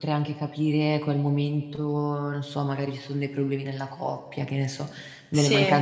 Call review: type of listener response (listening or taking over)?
listening